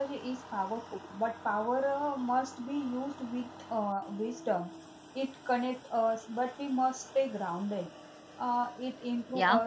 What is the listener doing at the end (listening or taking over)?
listening